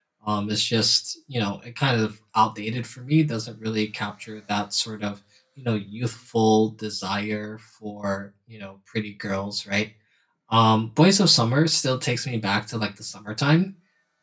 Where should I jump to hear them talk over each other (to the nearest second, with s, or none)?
none